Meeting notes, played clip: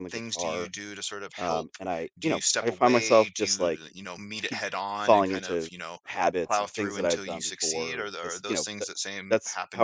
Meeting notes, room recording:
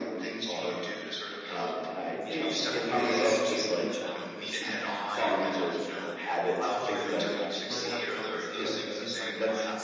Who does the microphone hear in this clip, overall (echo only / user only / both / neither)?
both